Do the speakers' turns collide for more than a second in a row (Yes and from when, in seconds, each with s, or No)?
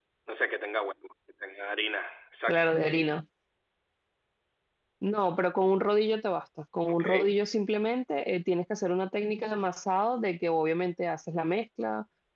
No